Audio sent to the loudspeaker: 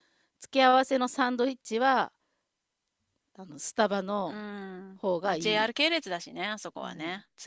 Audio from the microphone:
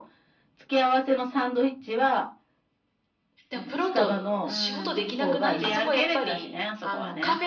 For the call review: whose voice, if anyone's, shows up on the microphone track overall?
both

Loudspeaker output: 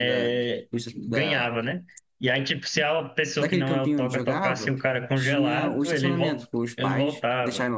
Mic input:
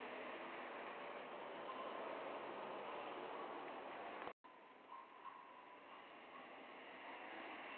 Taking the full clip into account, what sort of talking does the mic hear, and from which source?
neither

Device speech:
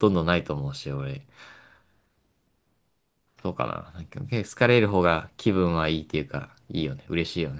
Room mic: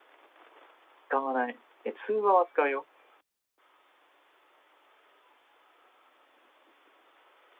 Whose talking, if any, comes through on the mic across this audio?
user only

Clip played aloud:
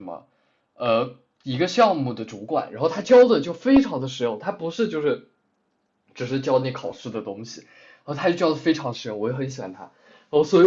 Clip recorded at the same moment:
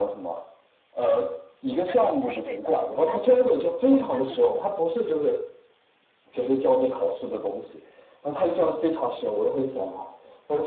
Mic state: both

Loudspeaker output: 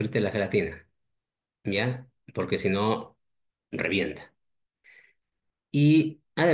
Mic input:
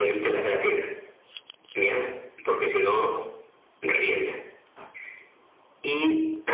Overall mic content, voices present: echo only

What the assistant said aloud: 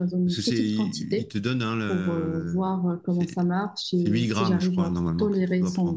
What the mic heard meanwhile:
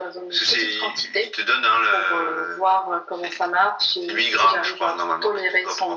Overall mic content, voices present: echo only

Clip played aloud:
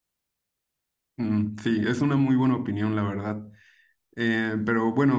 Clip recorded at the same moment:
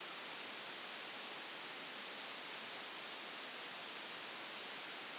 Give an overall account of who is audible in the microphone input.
neither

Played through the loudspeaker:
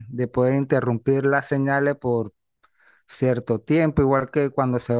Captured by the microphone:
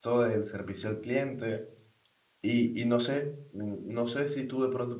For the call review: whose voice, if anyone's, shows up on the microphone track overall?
user only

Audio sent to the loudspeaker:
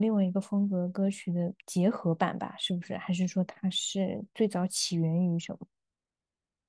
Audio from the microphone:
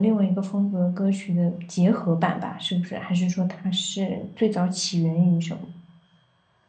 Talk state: echo only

